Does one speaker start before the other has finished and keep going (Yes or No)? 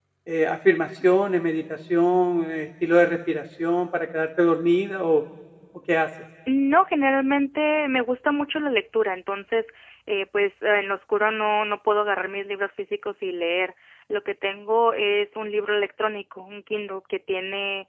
No